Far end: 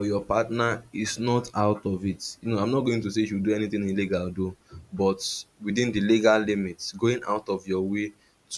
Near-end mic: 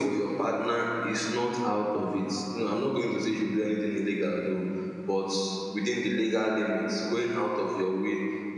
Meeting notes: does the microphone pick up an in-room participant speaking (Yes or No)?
No